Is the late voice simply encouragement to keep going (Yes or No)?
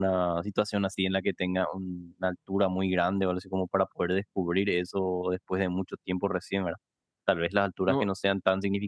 Yes